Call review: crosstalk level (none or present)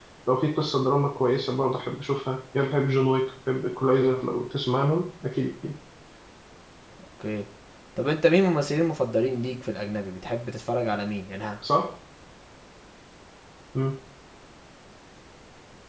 none